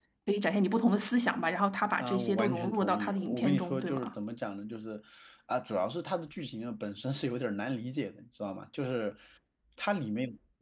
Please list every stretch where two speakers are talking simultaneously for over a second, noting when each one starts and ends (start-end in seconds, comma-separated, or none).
2.0-4.1